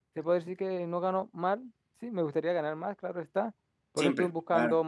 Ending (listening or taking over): listening